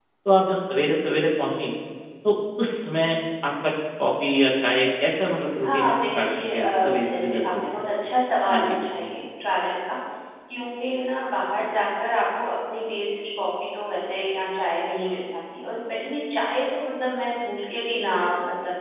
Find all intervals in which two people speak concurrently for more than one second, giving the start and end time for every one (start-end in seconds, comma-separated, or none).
5.6-7.6